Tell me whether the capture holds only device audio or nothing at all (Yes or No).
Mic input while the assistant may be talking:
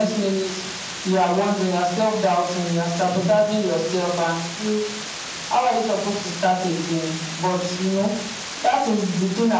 Yes